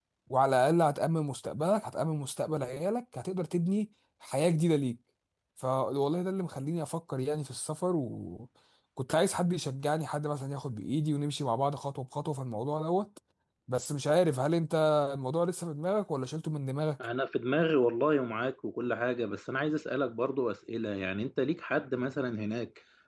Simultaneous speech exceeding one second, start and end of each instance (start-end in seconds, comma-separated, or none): none